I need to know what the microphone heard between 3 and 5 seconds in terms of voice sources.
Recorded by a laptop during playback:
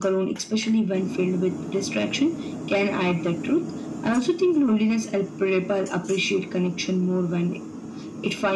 echo only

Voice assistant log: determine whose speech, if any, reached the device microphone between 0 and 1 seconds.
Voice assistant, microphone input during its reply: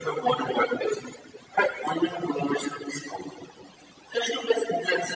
echo only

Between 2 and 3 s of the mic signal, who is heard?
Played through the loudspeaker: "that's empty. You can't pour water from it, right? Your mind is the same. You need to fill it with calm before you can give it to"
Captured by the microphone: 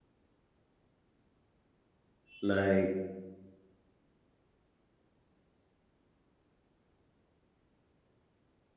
user only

